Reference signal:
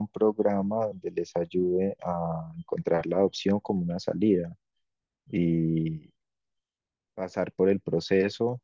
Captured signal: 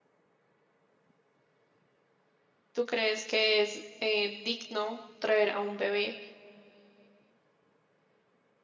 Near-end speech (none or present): present